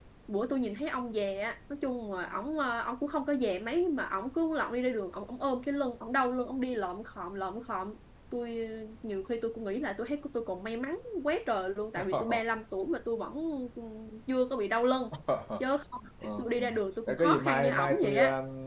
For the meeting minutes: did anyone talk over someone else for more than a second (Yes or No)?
Yes